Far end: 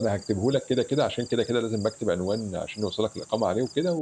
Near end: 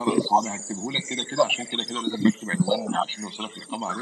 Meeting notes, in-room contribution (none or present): none